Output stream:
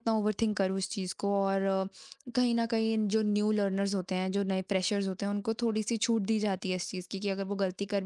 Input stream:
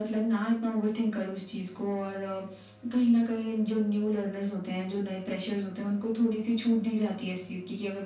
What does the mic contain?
echo only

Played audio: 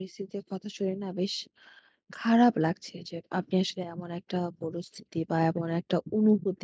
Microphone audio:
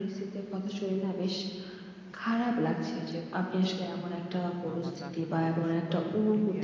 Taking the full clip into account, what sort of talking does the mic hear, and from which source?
both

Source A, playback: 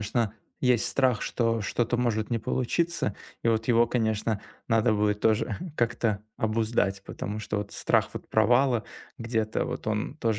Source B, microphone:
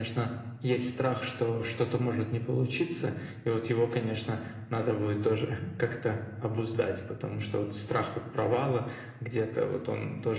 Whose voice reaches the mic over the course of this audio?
echo only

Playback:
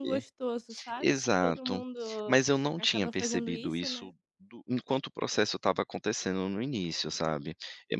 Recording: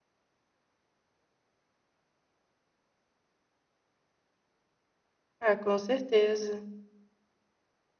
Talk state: user only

